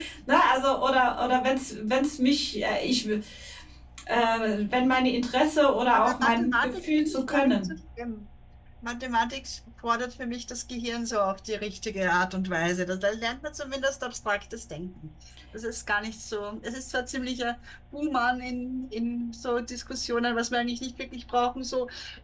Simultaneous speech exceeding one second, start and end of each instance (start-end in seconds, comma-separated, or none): 5.9-7.7